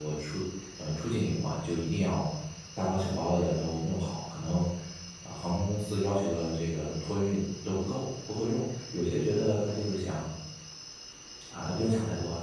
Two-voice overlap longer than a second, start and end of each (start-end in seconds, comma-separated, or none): none